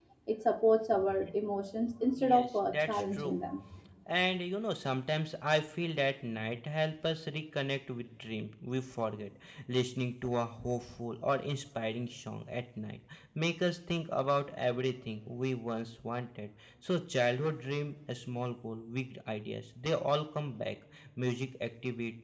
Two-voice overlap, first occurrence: 2.2 s

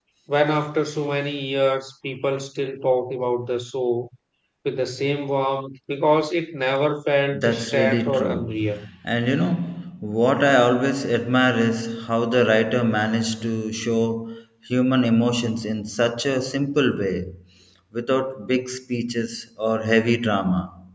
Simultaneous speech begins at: 7.3 s

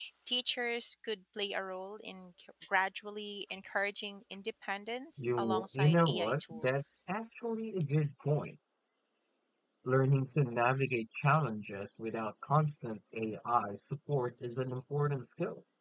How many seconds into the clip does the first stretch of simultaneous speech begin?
5.2 s

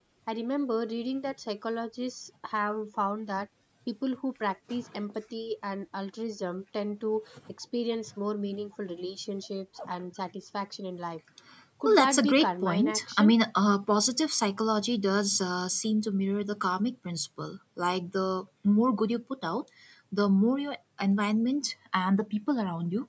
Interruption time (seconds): 11.8 s

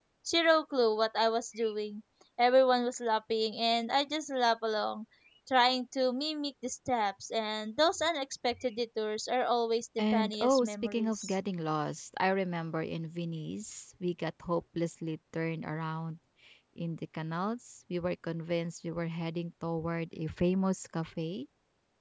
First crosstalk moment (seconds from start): 10.0 s

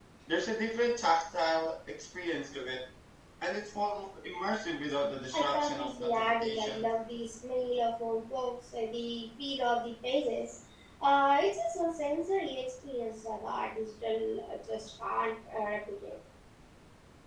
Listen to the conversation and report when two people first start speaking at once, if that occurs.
5.3 s

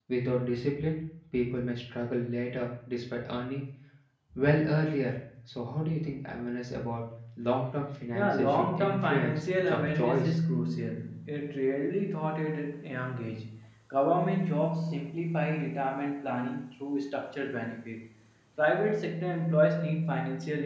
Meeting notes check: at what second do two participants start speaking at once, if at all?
8.1 s

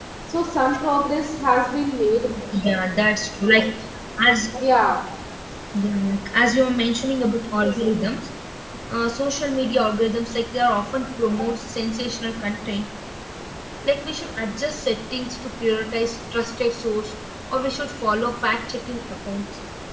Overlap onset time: none

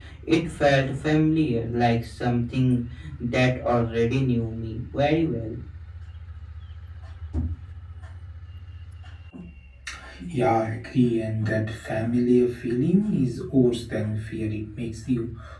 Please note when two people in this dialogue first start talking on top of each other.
none

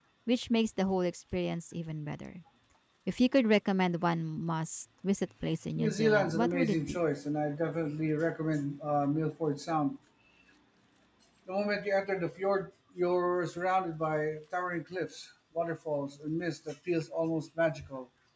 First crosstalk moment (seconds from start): 5.8 s

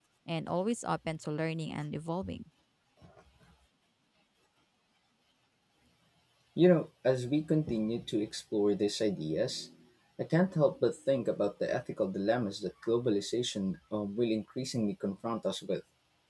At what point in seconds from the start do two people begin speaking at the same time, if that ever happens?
none

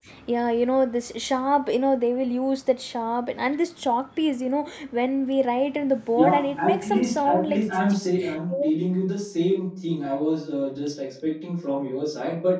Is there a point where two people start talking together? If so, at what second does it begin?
6.2 s

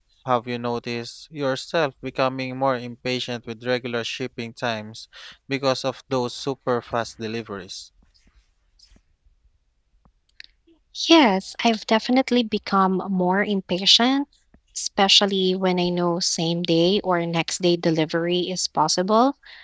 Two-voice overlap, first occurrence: none

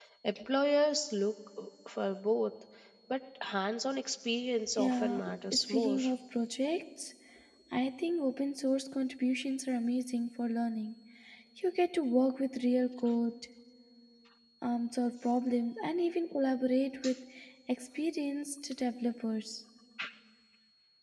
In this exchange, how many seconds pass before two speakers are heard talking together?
4.8 s

